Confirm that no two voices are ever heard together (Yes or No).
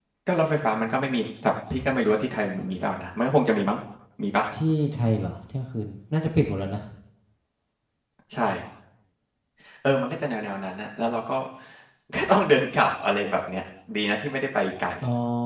Yes